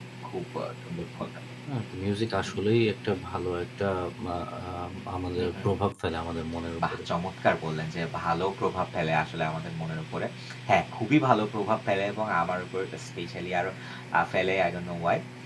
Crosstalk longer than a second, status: none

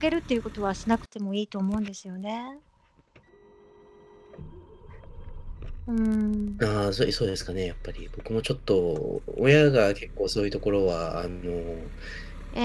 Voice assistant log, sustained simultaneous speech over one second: none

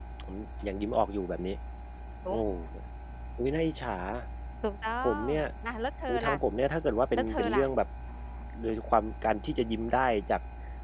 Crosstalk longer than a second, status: none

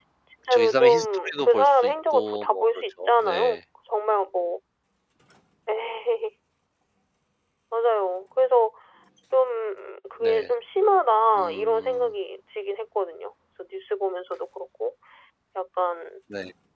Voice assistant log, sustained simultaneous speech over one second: present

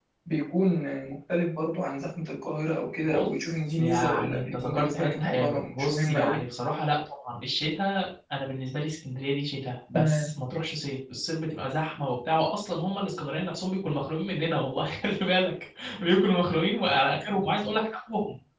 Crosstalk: present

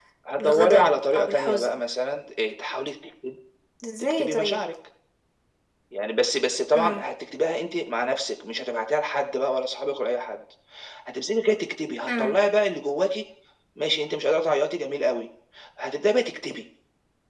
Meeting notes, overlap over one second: present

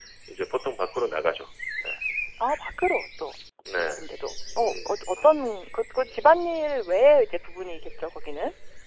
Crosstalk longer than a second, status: none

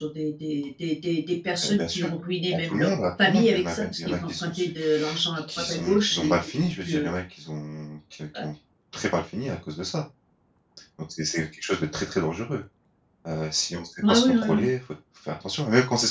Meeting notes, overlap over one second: present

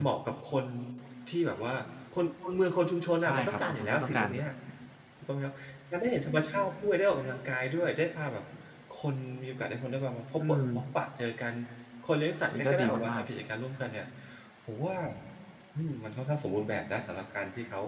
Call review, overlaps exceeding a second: present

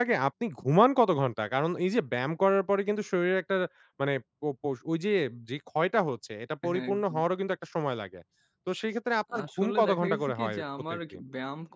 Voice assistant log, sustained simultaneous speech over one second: present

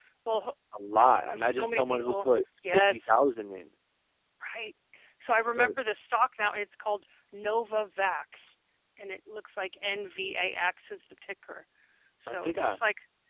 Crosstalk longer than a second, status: present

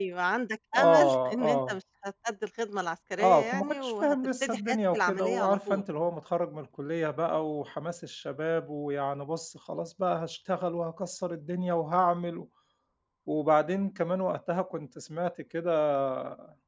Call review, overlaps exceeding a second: present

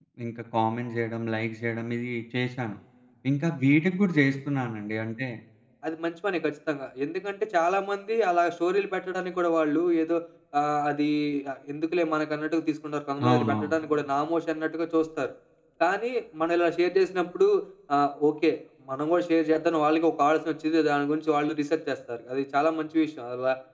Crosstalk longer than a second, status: none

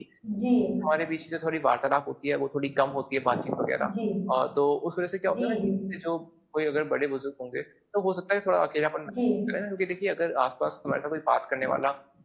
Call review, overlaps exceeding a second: none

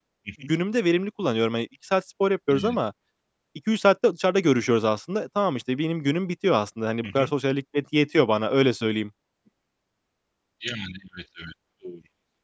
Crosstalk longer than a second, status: none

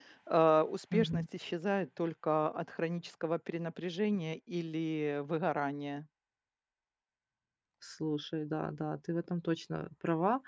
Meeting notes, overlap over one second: none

